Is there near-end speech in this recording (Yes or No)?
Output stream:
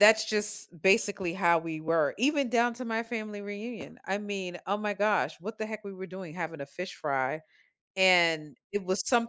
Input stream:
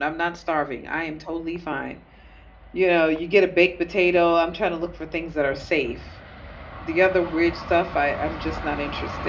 Yes